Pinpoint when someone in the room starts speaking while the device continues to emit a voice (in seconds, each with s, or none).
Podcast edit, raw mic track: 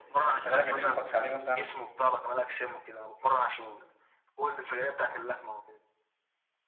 0.3 s